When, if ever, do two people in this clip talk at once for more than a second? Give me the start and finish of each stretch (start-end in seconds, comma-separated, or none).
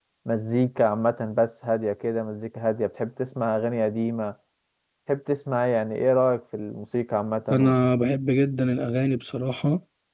none